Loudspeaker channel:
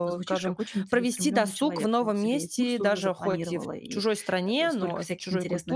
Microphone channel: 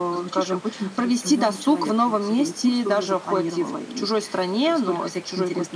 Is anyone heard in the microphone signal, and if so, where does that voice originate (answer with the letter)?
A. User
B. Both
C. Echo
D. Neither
C